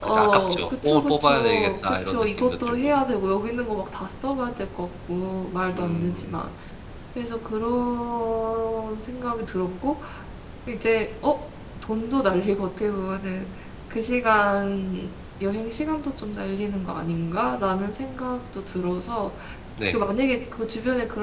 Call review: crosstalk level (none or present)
present